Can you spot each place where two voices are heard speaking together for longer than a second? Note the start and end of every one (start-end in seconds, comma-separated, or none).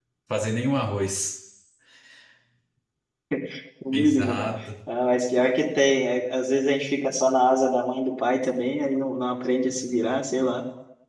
none